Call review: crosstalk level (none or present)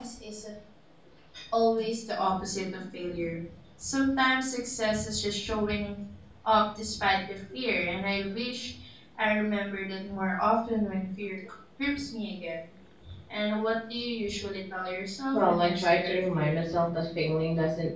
present